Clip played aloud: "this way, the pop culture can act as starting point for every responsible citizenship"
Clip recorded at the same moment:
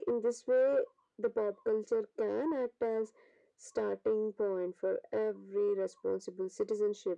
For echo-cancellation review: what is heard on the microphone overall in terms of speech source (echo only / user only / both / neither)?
echo only